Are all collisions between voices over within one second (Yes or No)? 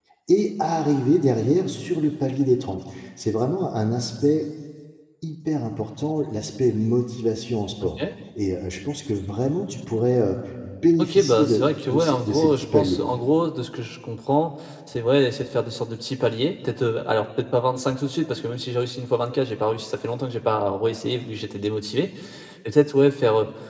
No